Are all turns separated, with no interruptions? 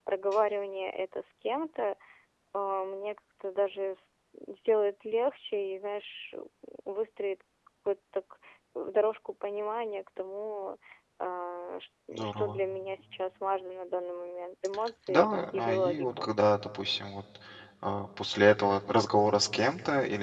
No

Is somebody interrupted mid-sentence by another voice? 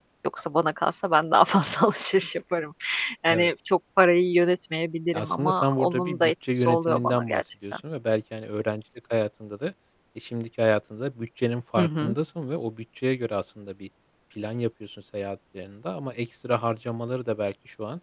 Yes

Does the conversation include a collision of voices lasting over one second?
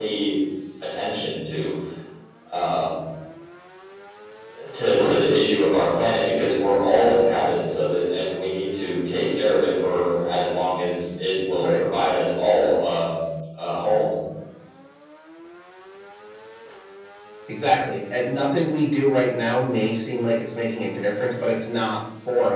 No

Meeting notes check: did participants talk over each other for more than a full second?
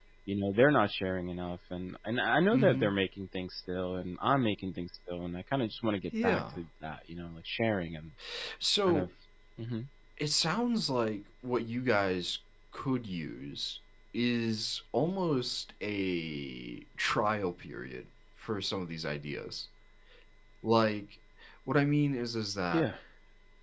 No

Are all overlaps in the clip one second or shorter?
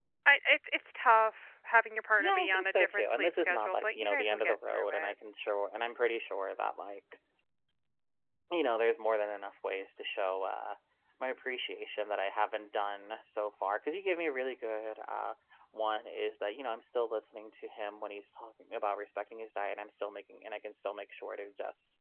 No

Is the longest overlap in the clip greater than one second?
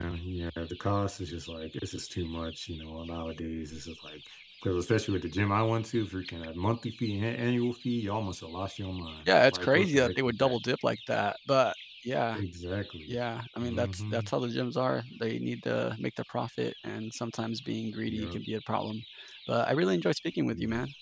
Yes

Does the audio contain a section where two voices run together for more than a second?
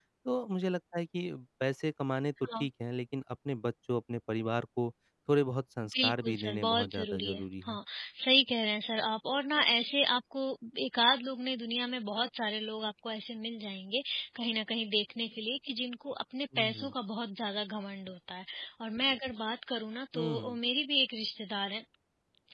Yes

